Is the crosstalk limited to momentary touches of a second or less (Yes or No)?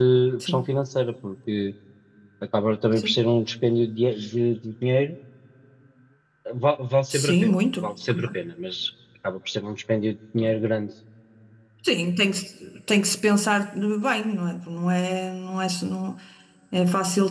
No